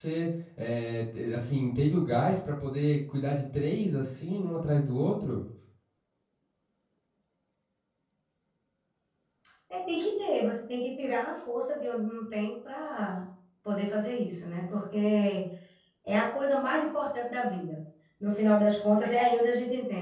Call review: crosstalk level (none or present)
none